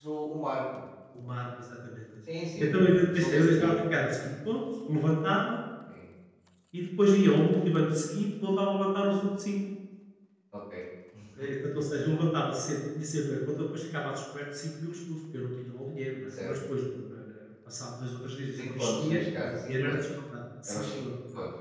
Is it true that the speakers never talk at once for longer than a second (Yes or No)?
No